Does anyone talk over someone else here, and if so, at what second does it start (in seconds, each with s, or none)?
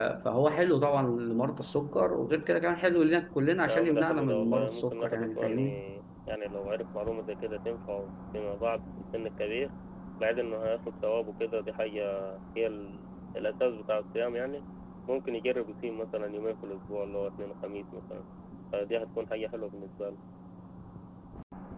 3.7 s